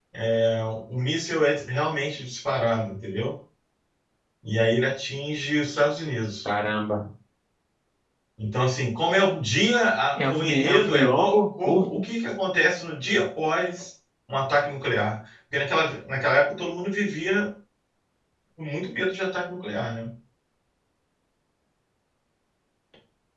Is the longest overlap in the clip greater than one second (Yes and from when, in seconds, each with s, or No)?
Yes, from 10.2 s